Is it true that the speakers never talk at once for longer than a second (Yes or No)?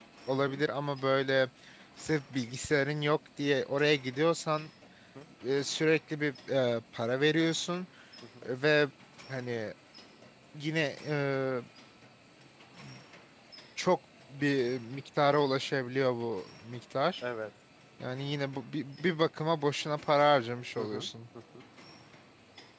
Yes